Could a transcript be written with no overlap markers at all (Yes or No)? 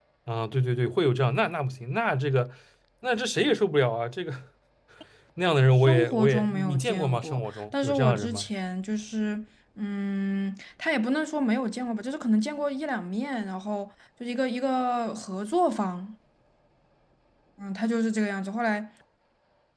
No